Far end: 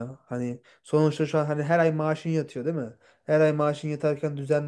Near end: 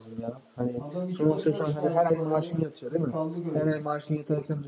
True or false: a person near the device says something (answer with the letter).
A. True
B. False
A